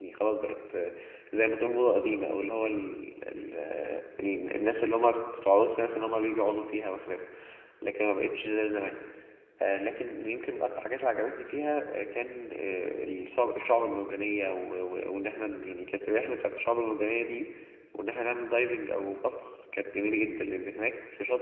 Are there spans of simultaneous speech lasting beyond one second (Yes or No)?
No